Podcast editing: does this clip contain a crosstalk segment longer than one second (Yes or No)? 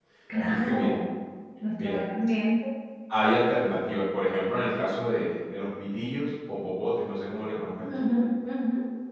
No